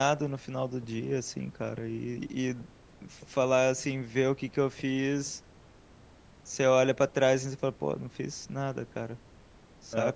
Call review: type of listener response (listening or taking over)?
taking over